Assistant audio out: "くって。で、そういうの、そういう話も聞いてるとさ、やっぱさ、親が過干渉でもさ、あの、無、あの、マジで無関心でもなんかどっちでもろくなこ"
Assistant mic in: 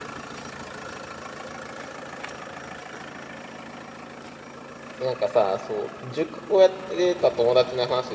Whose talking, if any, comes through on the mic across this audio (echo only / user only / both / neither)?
user only